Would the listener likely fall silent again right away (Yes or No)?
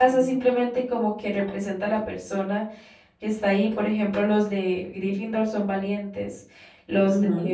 Yes